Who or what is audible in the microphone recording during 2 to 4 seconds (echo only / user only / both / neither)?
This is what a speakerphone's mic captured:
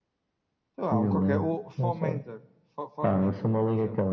both